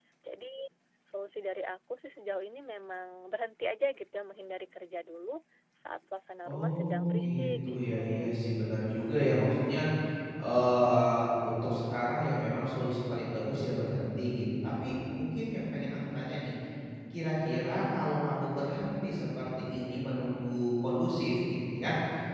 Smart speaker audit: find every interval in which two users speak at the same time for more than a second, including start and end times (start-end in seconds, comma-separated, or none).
6.5-8.3